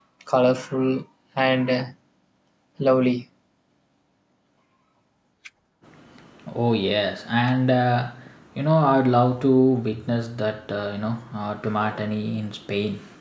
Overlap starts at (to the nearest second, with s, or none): none